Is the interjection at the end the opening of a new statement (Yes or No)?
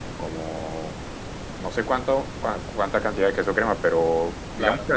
No